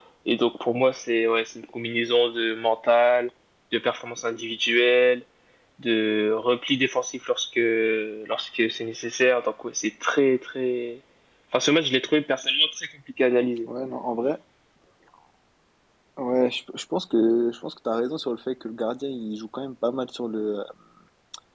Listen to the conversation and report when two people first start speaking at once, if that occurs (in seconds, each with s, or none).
none